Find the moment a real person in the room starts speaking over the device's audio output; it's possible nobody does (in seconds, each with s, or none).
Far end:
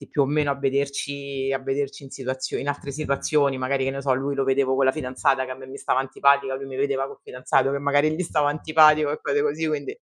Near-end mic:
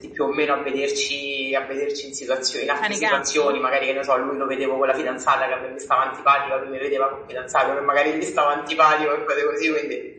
2.8 s